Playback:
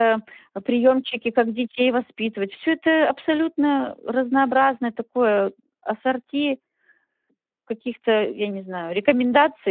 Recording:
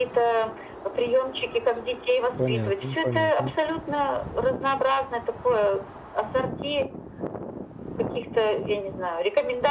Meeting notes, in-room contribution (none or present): present